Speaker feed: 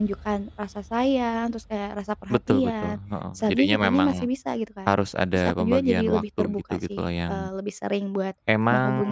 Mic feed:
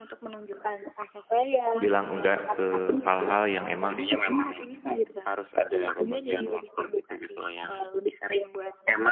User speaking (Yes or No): Yes